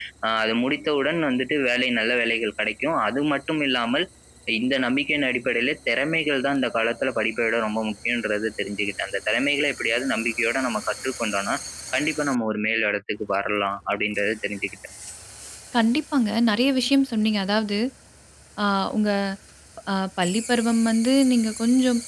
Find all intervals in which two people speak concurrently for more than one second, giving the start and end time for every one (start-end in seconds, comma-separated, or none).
none